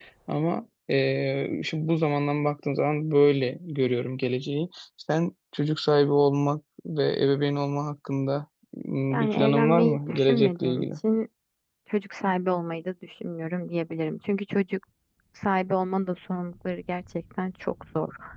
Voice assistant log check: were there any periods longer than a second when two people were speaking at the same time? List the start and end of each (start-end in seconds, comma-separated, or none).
9.1-10.9